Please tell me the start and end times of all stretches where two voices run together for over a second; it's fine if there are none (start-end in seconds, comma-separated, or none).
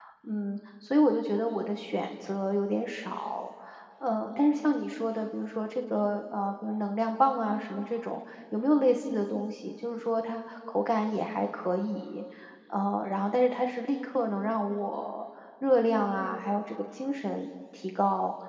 none